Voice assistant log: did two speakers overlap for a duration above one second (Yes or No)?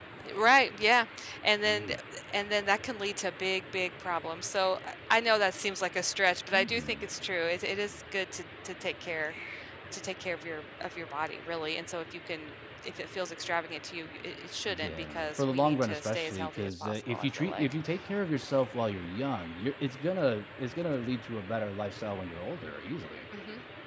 Yes